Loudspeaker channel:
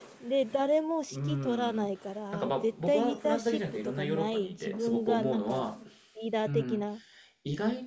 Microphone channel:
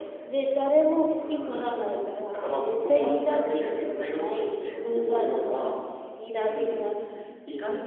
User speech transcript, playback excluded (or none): none